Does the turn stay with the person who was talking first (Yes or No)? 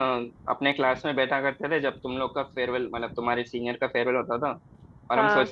Yes